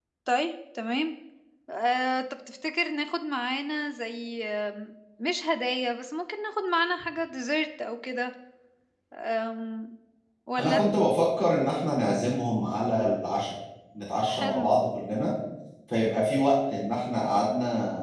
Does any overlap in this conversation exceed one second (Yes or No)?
No